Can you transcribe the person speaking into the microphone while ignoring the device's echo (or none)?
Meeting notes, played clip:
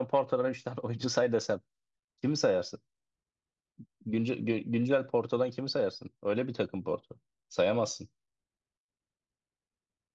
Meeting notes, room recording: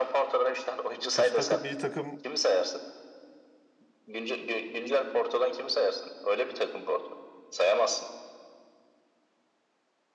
kötü takım iyi takım